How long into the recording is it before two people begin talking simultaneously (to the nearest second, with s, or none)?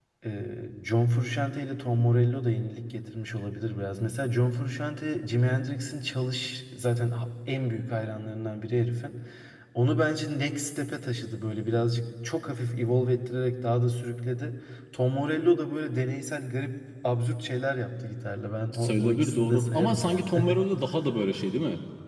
19 s